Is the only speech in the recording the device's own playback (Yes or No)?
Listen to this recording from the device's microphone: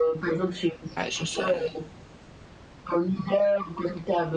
No